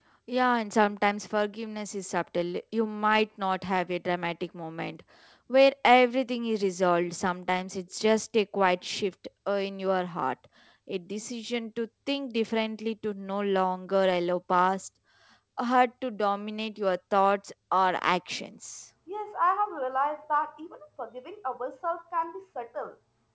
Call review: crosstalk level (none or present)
none